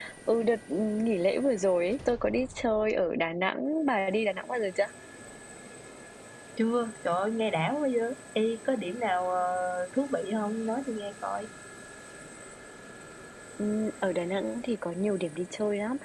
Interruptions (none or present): none